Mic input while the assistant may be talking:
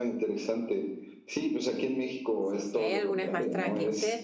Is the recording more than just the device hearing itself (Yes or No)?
Yes